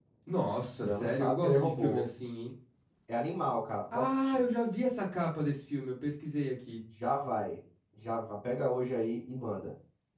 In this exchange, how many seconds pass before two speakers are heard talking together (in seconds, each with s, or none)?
0.8 s